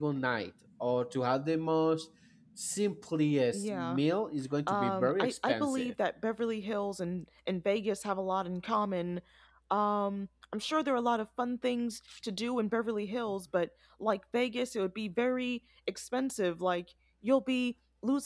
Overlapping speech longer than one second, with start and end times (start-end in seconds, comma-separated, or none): 4.7-5.9